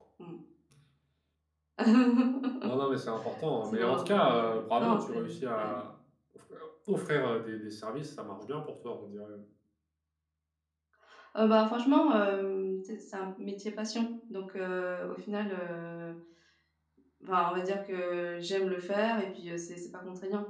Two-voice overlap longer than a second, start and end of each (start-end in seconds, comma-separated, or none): 3.7-5.7